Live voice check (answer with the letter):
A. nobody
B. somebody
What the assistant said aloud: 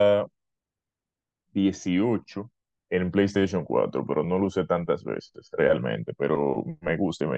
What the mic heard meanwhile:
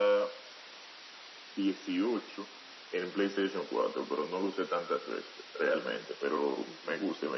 A